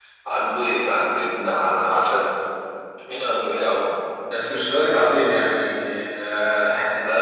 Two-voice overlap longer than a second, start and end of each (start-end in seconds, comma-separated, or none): none